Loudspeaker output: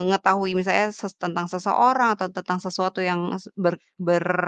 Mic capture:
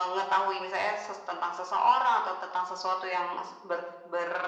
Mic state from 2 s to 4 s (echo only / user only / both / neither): echo only